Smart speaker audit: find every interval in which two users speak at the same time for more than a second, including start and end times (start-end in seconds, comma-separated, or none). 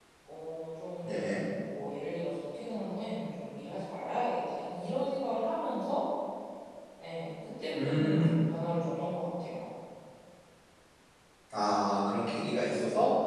none